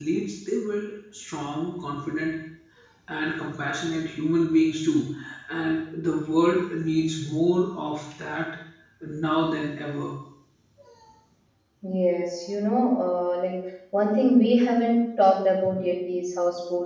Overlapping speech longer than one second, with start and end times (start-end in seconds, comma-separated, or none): none